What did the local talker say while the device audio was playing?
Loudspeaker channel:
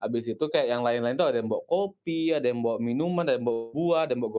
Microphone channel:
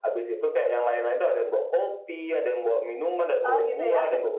Oh, gitu ya.

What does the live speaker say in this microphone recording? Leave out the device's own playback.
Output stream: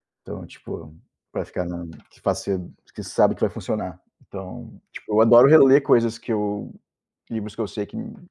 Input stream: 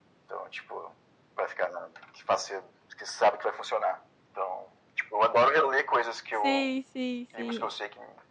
Sim, sim, sim.

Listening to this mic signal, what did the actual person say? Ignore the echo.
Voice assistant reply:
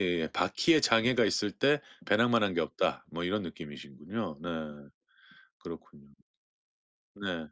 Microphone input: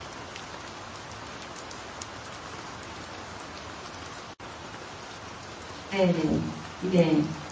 네네. 네.

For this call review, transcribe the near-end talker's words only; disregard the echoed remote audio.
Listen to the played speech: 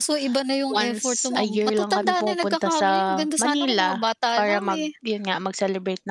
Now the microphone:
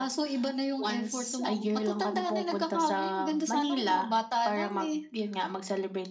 none

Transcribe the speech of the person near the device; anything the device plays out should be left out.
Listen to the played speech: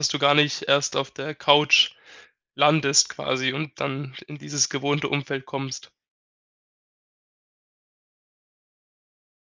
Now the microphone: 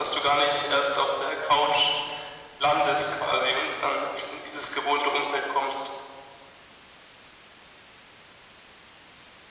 none

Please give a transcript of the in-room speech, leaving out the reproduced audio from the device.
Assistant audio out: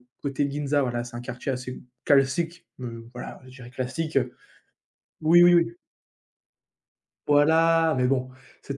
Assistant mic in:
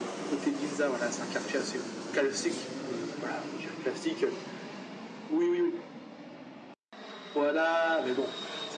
none

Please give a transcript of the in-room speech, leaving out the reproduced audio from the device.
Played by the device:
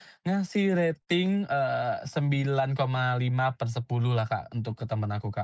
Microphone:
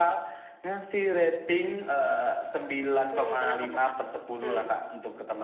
Mmm, kenapa tuh Kak? Hmm.

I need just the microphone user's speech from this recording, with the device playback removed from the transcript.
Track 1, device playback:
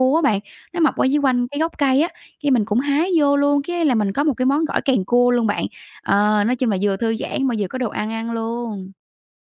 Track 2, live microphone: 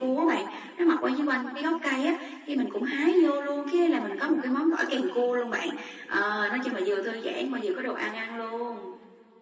none

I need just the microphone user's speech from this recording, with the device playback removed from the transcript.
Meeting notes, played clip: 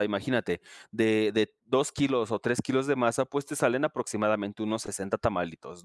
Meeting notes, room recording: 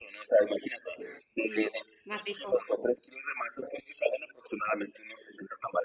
Sí, más rico.

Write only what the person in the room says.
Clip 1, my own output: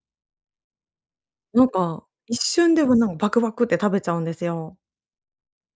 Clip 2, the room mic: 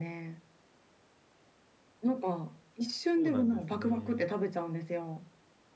そうなんですね。

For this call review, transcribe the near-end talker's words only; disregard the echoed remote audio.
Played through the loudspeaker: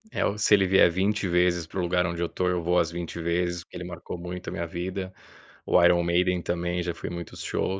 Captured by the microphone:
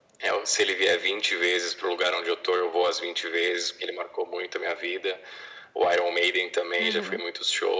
Aham.

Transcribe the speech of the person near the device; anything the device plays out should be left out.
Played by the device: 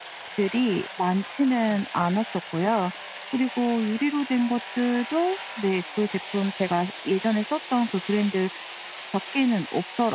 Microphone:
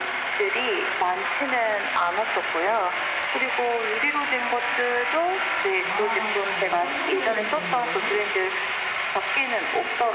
와. 상상만 해도 좋은데요.

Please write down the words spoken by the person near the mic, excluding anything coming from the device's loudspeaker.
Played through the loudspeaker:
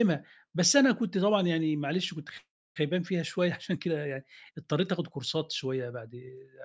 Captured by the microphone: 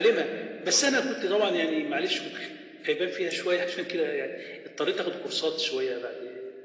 none

